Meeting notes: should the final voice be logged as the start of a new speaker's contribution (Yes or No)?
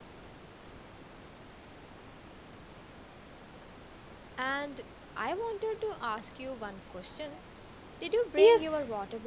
Yes